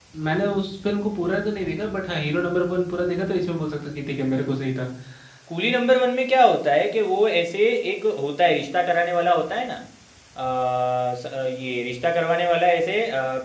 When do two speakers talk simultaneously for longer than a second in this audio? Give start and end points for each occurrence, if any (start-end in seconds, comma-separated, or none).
none